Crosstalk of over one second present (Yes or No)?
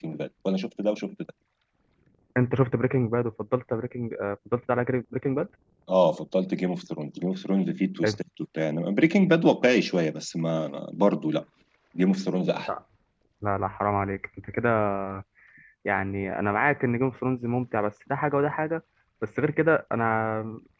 No